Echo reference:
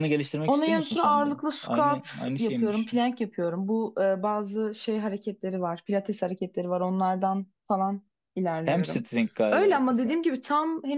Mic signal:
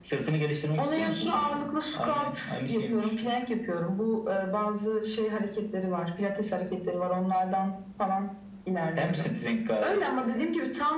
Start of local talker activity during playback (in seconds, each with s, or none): none